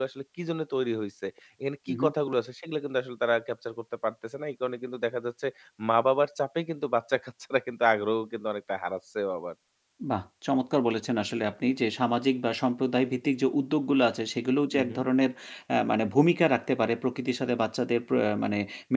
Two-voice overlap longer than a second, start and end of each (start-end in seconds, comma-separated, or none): none